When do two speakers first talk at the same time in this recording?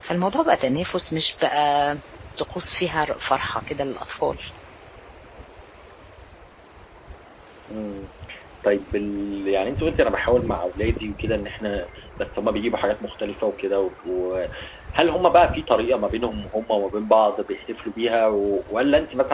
none

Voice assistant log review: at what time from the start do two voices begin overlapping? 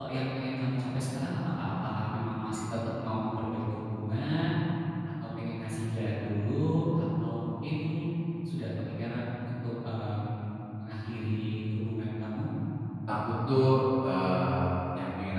none

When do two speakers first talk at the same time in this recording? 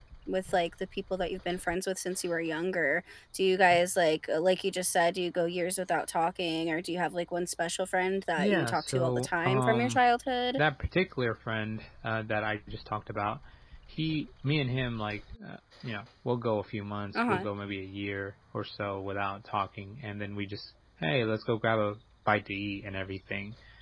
8.4 s

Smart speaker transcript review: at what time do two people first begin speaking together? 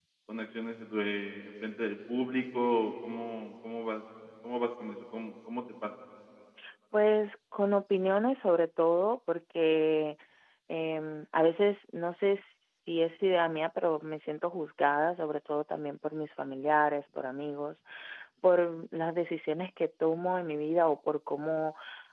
none

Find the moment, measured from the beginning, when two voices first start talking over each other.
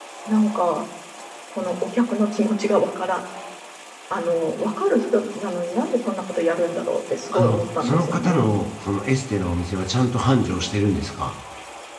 7.3 s

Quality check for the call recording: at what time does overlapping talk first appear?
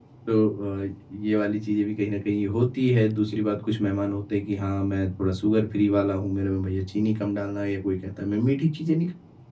none

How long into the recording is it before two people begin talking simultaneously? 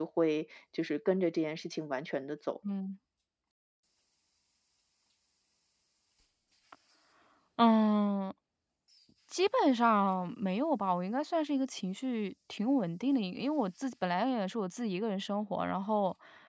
none

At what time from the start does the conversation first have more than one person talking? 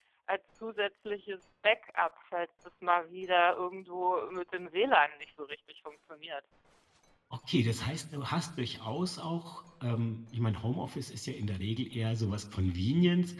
none

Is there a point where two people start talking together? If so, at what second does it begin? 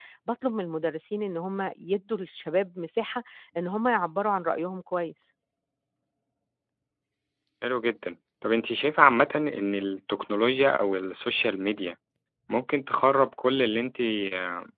none

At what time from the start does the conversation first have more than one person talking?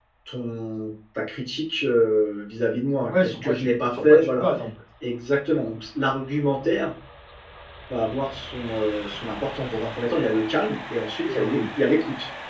3.1 s

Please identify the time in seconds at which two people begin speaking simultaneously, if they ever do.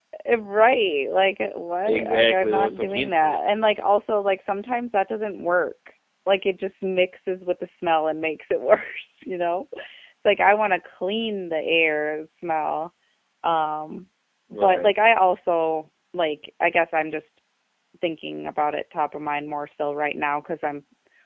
1.9 s

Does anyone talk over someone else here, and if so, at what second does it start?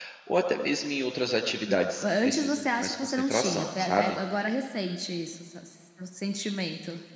1.7 s

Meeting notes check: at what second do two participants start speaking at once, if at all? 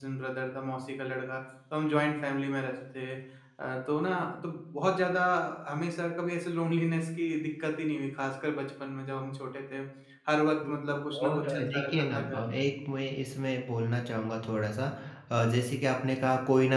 11.2 s

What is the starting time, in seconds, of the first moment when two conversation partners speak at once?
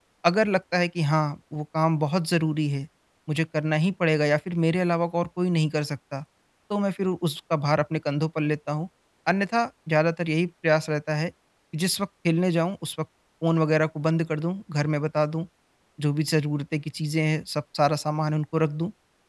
none

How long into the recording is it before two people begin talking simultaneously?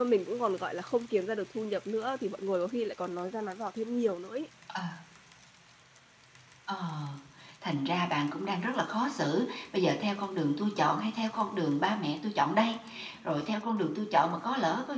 none

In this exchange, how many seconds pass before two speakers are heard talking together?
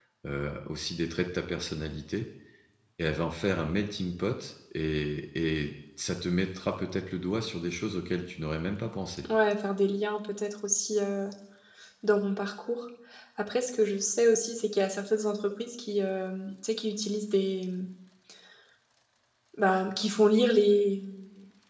none

